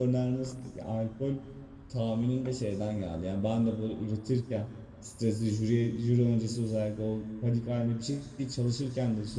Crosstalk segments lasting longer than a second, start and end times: none

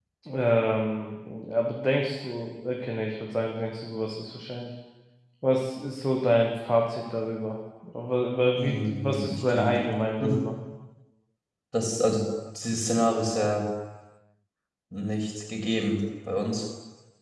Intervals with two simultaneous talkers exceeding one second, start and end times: 8.6-9.8

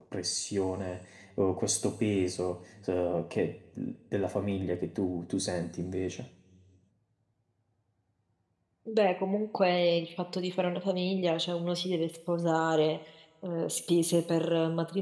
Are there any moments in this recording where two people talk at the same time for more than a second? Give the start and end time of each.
none

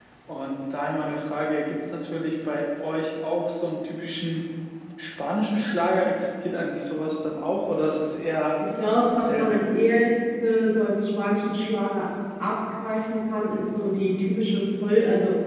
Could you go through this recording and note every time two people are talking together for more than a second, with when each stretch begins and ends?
none

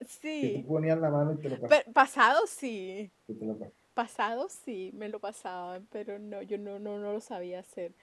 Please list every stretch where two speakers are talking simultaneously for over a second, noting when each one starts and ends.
none

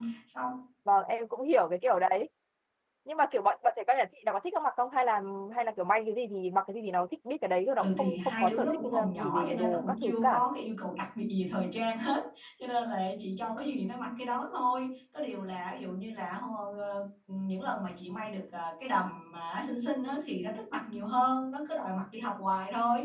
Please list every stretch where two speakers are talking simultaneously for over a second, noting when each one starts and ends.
7.8-10.4

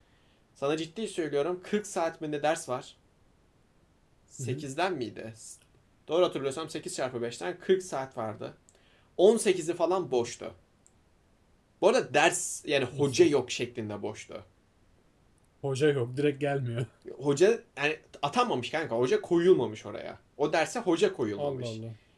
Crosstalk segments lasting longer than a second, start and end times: none

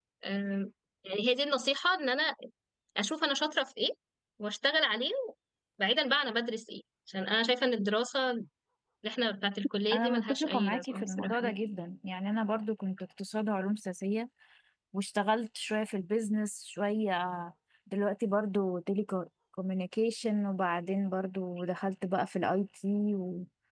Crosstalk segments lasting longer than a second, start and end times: 9.9-11.4

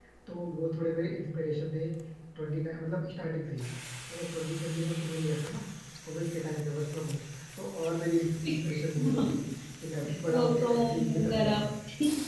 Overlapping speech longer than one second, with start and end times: 10.4-11.7

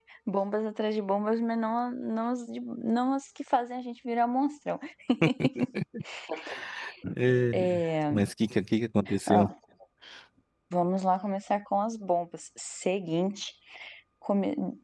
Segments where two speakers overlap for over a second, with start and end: none

